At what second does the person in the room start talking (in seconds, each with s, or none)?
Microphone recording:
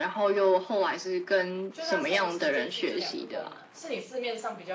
1.7 s